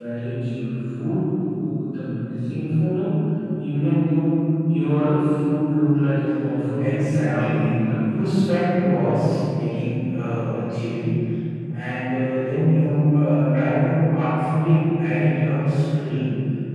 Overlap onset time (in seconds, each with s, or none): 6.8 s